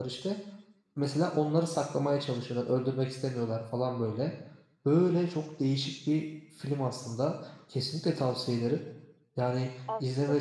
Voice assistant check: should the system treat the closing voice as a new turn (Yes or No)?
Yes